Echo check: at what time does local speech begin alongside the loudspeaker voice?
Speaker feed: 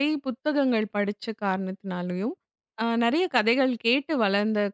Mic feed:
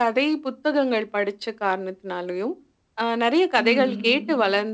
3.6 s

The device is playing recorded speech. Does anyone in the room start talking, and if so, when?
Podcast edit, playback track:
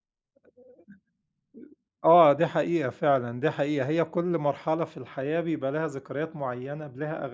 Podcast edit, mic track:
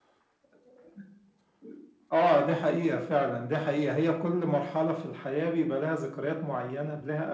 none

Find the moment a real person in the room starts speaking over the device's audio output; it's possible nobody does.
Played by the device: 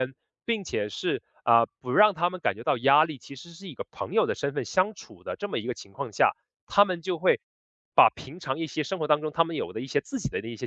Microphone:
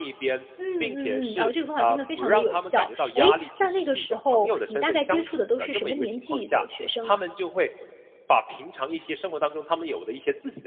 0.6 s

